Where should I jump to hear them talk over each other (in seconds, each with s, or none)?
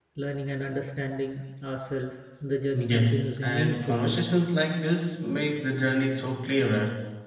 2.7 s